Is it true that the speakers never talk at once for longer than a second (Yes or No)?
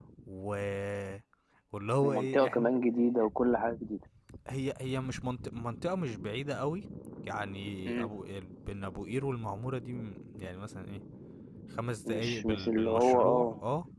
No